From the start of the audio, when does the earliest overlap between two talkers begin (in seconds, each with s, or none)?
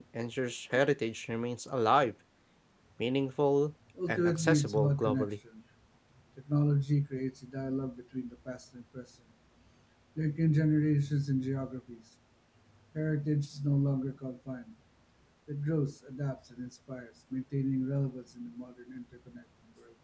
4.0 s